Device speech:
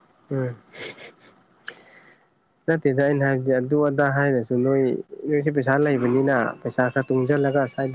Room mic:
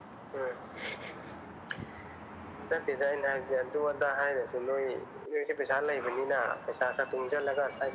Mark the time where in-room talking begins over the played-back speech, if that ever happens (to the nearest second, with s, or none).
none